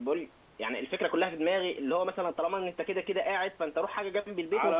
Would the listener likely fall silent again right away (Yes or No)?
No